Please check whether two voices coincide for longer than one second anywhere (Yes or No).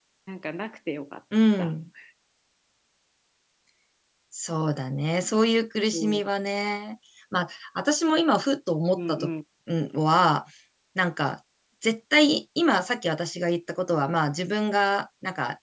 No